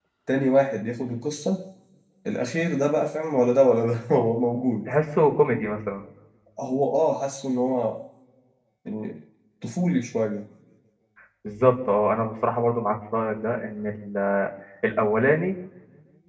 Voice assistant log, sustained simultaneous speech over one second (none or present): none